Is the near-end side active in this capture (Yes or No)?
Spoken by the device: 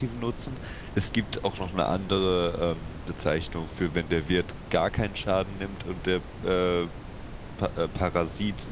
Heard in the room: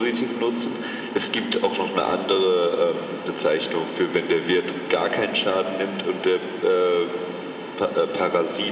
No